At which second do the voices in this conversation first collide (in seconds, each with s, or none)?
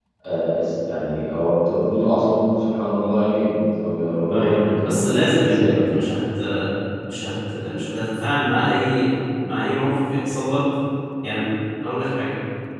4.2 s